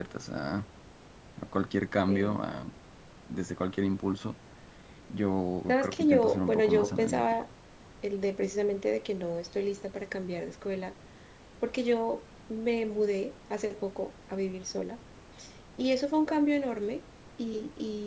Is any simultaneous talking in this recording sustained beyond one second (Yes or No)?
Yes